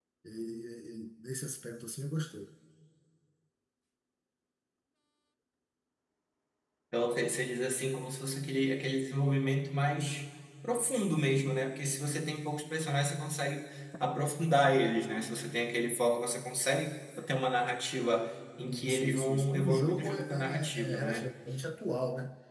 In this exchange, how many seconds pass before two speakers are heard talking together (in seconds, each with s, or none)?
18.6 s